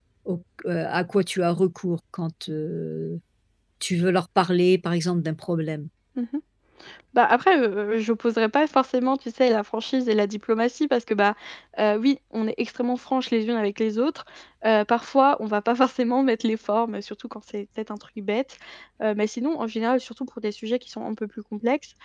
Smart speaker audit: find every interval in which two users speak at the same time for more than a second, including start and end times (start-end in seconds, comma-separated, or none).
none